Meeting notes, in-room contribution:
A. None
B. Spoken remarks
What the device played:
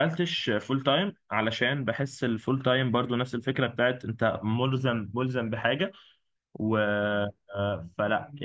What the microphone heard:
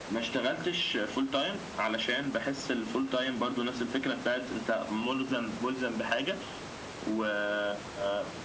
A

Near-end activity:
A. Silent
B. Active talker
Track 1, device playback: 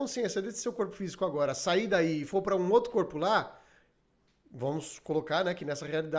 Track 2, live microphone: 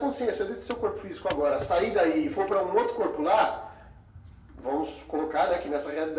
A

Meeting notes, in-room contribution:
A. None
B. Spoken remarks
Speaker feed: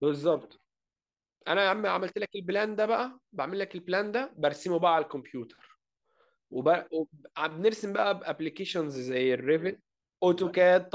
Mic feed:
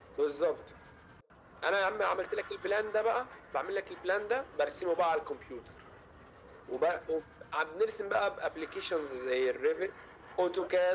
A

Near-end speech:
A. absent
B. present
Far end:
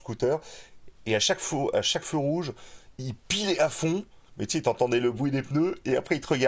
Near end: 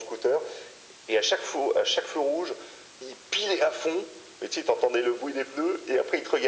A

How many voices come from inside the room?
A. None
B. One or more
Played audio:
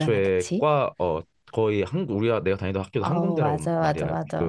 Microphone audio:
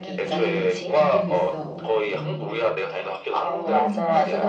B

